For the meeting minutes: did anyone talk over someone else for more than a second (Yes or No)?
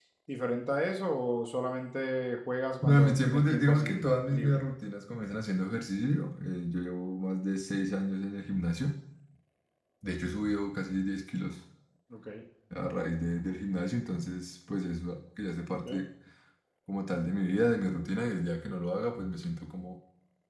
Yes